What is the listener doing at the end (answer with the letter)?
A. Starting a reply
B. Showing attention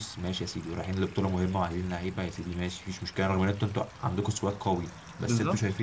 B